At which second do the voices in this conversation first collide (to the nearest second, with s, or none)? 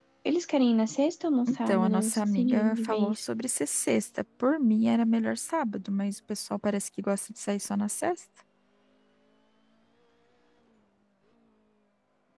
1 s